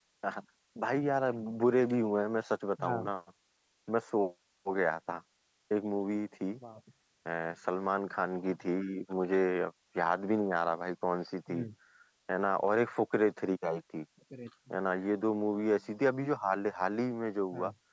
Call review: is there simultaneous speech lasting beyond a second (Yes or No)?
No